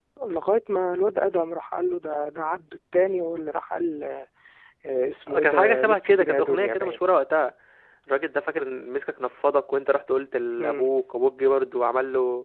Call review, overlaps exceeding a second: present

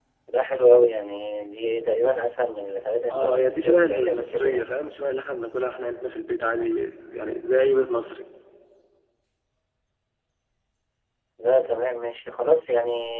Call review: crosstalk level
present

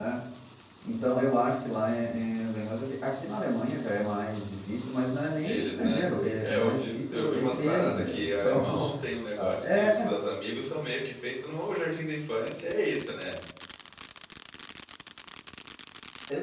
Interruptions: present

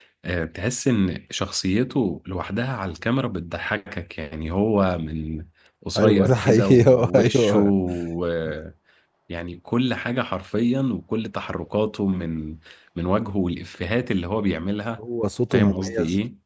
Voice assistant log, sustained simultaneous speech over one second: present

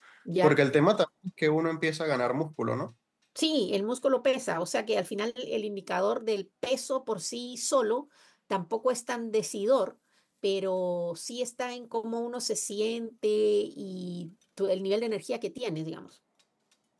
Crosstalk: none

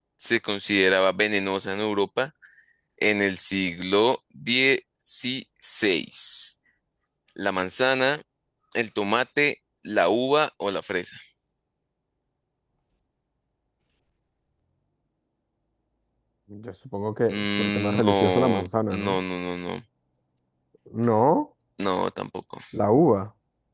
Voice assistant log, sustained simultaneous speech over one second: present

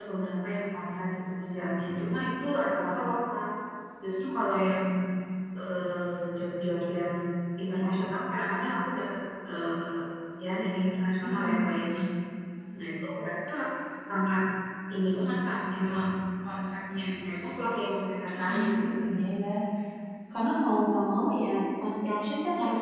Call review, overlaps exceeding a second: none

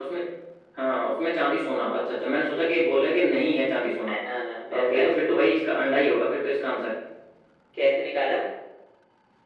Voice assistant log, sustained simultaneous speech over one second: none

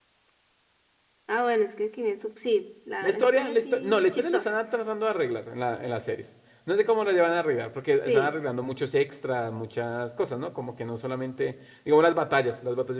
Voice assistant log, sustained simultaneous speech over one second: present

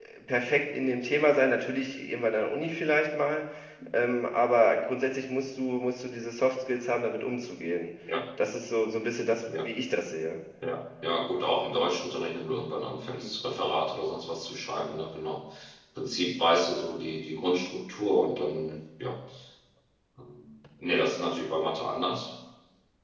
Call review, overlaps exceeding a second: none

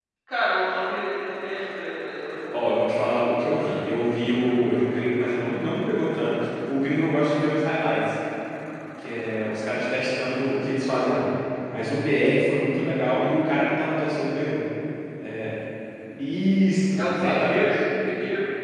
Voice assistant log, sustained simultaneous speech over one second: present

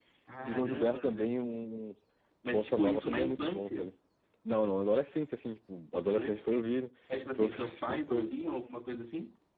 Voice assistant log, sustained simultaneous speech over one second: present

